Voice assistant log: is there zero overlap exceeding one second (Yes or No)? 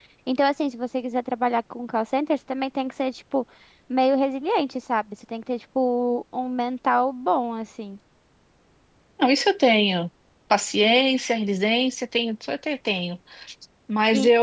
Yes